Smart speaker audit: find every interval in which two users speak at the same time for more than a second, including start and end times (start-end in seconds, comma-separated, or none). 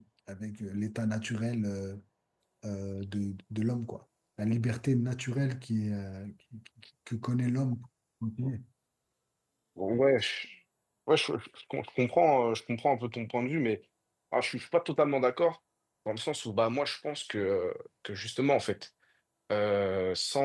none